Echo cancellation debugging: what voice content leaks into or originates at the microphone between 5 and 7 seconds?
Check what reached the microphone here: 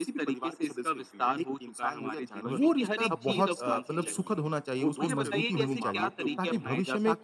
both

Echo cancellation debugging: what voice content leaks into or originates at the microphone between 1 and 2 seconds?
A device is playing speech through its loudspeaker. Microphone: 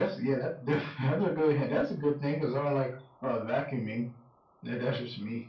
echo only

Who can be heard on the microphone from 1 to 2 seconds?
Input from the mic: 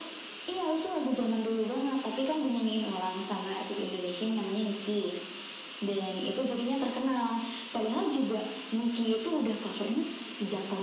echo only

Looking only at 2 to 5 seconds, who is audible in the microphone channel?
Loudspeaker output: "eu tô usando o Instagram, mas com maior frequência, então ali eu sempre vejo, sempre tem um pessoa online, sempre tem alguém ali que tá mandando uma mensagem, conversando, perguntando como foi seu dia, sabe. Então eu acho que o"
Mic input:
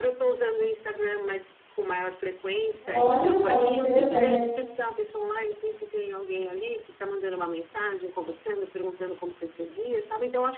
both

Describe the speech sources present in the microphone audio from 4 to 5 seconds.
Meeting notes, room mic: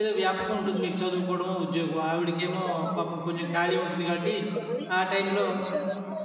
both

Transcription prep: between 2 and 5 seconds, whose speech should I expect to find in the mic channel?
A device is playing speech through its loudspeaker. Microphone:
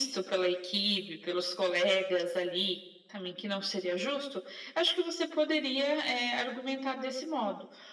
echo only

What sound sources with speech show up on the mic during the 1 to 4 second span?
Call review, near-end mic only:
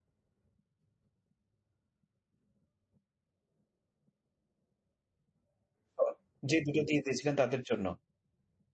neither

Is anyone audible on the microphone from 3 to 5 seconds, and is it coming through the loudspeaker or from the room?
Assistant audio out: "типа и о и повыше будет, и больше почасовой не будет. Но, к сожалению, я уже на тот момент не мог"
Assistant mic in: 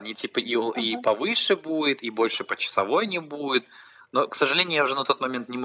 echo only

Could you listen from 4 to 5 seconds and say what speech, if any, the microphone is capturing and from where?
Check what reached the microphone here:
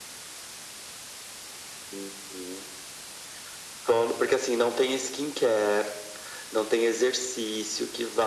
echo only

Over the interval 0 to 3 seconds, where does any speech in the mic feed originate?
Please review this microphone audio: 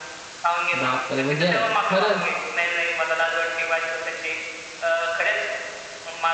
both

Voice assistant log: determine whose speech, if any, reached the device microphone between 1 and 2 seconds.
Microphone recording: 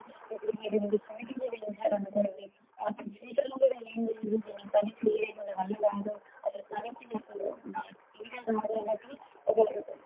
echo only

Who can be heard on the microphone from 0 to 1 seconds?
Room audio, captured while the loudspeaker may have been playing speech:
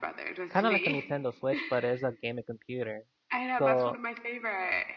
both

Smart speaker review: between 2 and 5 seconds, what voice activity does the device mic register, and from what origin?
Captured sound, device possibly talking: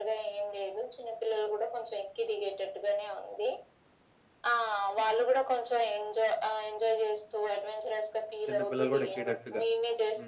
echo only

